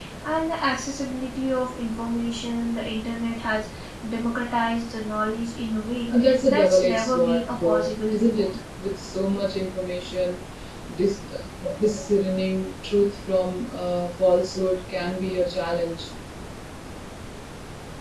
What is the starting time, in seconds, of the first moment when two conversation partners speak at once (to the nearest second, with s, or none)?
6 s